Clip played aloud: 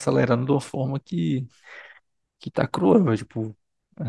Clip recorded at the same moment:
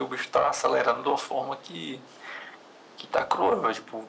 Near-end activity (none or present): none